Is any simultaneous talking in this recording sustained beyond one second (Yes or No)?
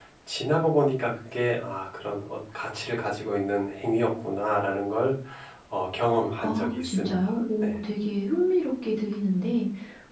Yes